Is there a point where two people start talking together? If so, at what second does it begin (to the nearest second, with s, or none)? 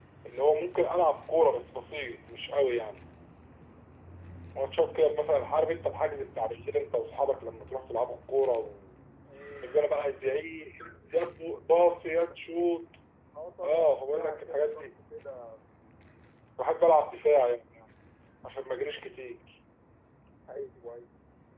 14 s